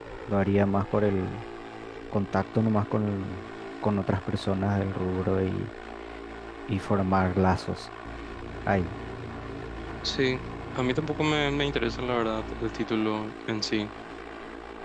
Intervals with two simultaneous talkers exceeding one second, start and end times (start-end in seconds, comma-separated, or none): none